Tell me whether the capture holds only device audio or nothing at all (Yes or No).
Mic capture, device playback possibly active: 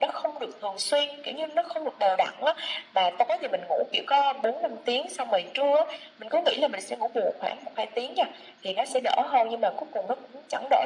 Yes